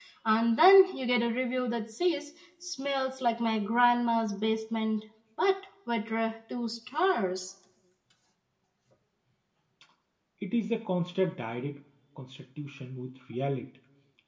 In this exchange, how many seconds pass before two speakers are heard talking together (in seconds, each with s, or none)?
none